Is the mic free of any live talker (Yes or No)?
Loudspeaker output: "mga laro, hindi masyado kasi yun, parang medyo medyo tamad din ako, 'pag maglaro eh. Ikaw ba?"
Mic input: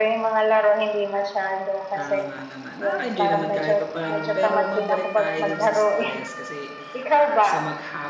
No